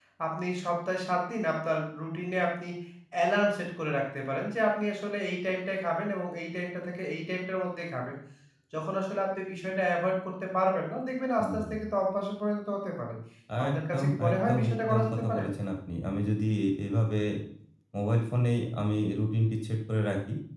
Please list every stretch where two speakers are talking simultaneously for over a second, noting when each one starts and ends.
13.7-15.4

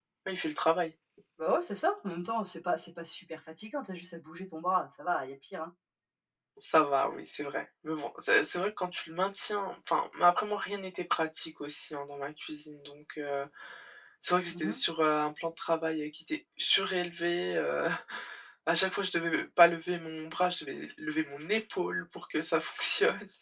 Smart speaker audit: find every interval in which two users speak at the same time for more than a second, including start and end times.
none

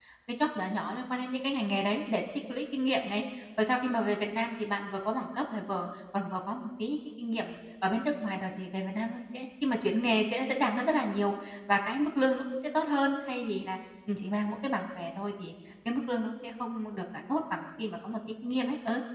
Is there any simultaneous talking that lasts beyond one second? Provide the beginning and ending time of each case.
none

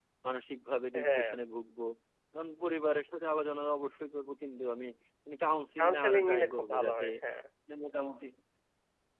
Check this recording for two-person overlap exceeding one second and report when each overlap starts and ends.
5.8-7.1

